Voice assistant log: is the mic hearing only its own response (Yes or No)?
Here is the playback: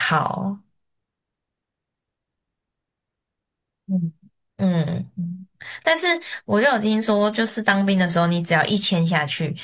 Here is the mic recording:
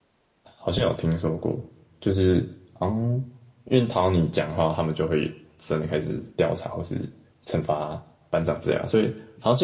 No